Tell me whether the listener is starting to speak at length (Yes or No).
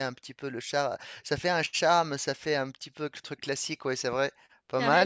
Yes